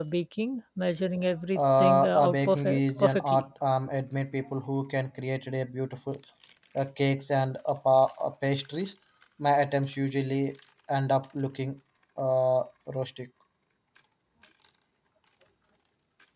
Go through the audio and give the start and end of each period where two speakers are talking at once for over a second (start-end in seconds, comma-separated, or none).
1.6-3.4